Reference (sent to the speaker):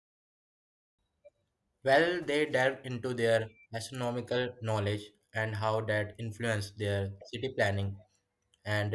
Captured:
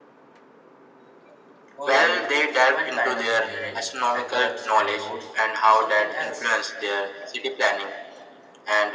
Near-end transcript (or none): Oh, really? What kind of engineering? Aqueducts and roads, or something else?